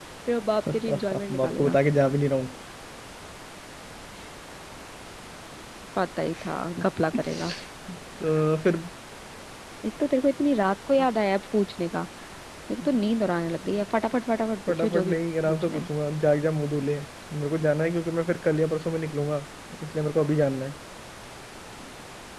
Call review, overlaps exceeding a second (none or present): present